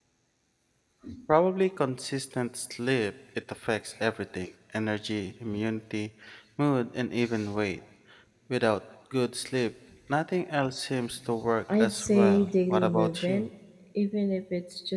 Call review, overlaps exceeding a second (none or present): present